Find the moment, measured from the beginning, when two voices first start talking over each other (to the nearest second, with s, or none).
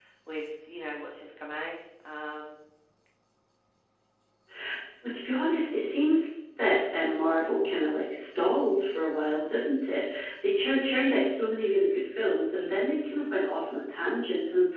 none